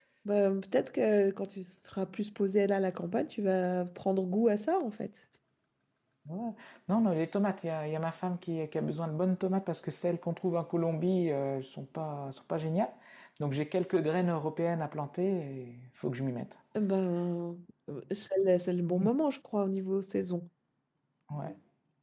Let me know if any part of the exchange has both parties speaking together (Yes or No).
No